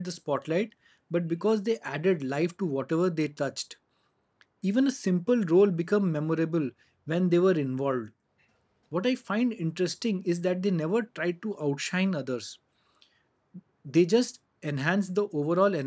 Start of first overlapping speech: none

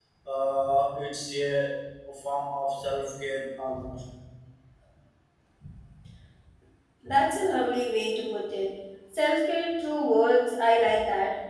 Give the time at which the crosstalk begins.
none

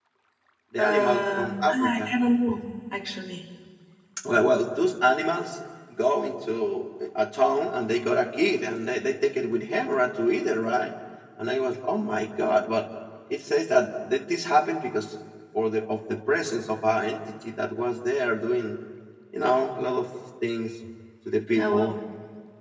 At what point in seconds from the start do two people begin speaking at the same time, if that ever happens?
0.8 s

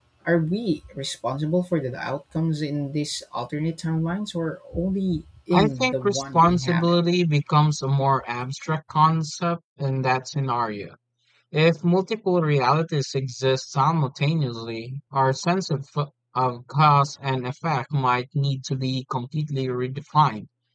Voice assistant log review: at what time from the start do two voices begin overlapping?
5.5 s

